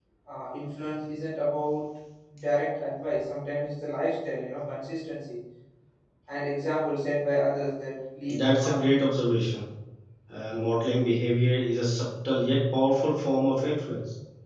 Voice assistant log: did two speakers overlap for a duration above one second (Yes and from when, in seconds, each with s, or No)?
No